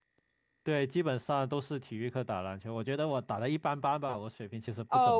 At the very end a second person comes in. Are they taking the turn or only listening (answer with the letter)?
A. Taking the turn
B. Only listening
A